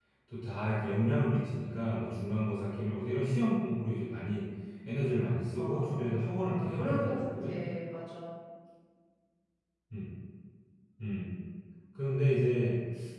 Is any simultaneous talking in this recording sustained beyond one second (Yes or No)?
Yes